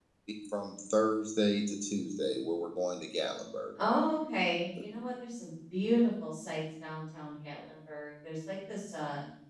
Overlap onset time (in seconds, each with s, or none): none